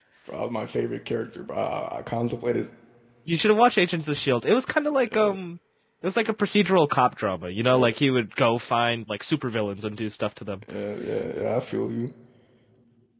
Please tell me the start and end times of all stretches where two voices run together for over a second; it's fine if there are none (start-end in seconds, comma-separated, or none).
none